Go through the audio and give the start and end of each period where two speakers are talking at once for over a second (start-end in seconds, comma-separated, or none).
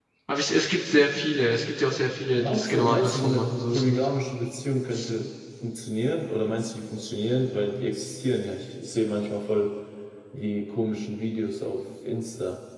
2.4-4.1